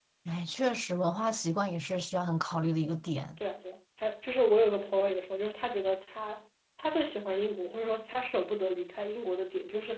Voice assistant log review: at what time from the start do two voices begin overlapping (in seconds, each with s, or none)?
none